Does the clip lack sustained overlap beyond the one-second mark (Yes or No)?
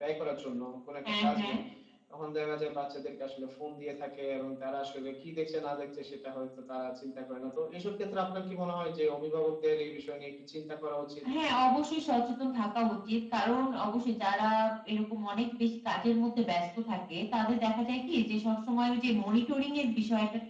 Yes